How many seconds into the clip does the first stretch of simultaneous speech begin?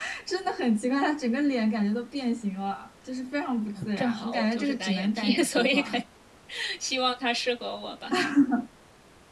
4 s

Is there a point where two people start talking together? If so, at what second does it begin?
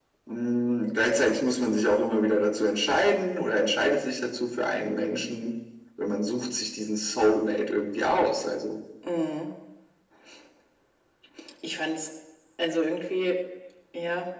none

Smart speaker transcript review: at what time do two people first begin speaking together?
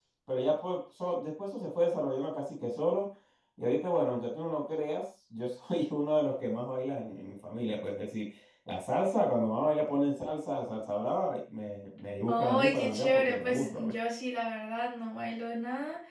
12 s

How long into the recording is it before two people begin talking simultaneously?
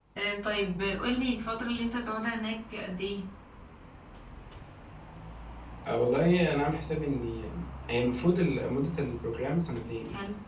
none

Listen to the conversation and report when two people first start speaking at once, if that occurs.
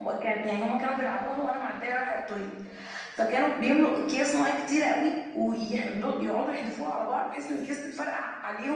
none

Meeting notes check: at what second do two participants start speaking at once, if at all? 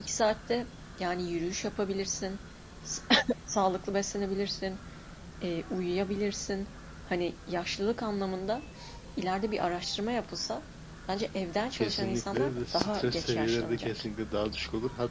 12 s

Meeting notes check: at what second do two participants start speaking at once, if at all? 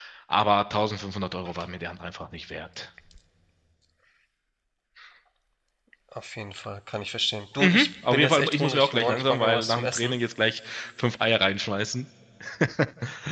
8 s

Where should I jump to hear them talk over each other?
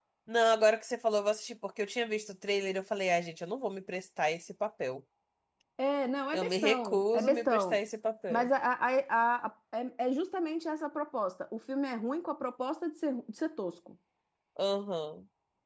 6 s

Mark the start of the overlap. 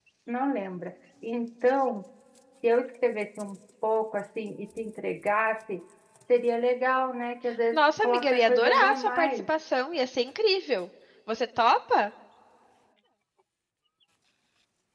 8 s

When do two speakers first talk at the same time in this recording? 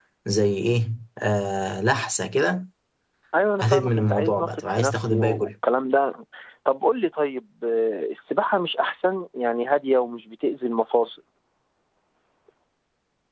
4 s

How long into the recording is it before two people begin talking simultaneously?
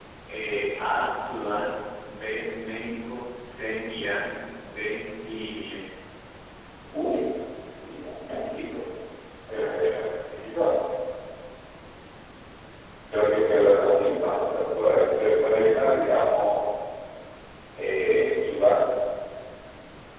none

